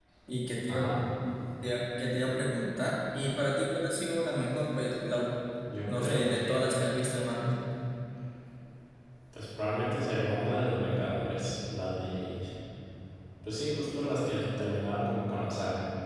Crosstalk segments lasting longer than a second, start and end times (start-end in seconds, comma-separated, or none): 5.8-7.3